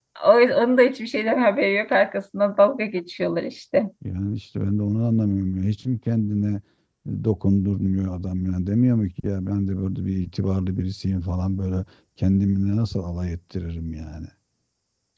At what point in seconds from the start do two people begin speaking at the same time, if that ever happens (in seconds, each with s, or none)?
none